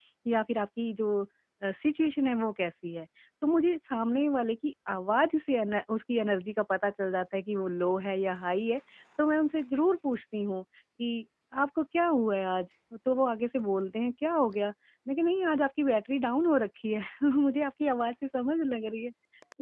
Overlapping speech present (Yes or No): No